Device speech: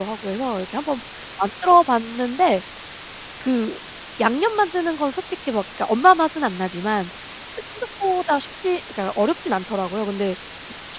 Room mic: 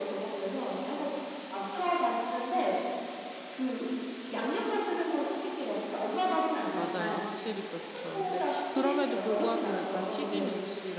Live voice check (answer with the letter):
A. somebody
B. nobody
A